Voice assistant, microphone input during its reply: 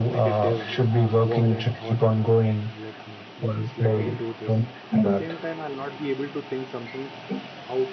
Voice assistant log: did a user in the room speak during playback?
Yes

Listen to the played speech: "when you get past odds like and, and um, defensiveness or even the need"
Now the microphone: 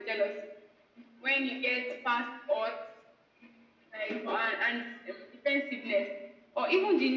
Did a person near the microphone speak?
No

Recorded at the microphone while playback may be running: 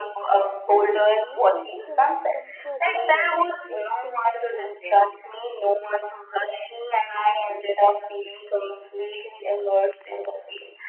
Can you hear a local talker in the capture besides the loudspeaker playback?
Yes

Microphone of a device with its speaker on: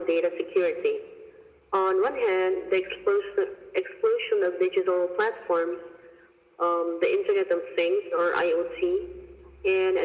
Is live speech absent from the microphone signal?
Yes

